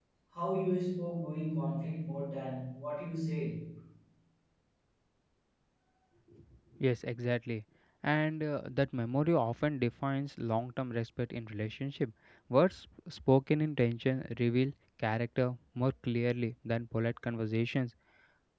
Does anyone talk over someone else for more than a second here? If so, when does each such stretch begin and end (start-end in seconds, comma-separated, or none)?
none